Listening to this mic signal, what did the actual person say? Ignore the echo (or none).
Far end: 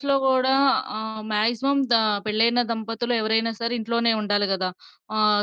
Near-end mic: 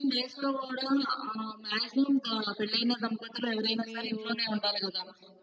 మీరూ,